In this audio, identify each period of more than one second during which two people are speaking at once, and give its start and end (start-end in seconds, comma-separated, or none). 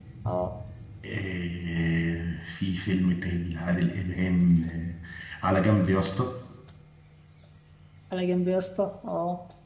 none